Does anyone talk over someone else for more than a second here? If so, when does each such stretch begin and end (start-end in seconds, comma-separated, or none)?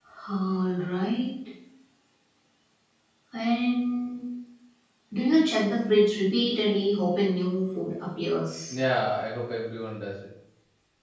none